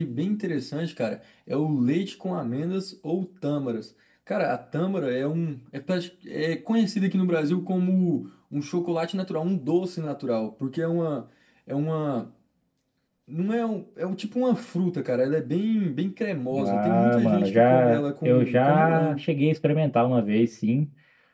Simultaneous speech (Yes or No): Yes